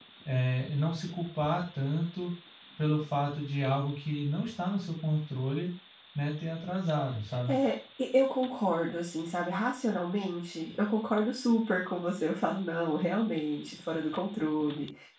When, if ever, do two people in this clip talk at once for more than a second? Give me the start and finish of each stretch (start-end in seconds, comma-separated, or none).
none